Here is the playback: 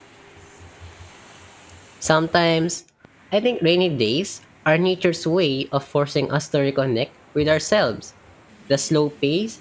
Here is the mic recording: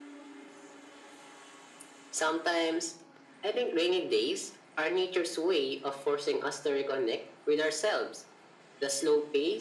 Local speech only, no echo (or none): none